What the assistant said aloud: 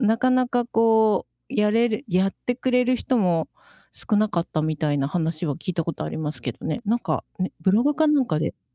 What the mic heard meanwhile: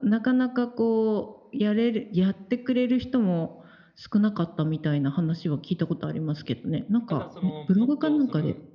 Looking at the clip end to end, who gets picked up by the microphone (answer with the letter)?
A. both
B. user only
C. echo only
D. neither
A